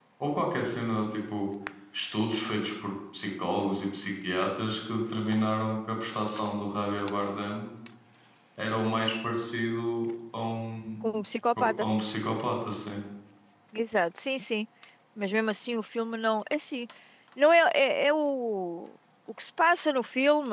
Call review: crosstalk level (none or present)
none